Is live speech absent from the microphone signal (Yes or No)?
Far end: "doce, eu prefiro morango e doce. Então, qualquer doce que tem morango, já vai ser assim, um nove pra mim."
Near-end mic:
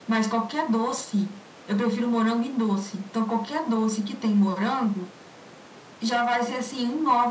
Yes